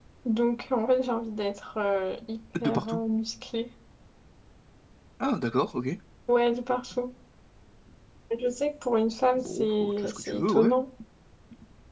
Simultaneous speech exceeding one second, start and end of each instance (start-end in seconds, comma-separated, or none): 9.4-10.7